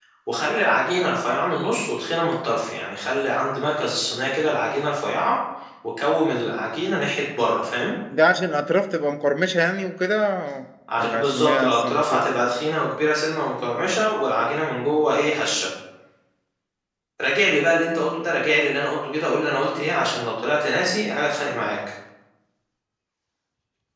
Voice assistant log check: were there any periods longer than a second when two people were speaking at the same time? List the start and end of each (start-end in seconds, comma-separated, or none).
11.0-12.2